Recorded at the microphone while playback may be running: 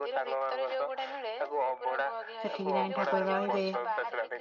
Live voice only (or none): ସେଠିକି ଯାଇଠ ତାରେ ରହିବେ